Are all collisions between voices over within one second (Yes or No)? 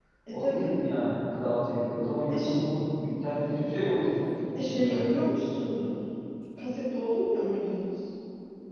Yes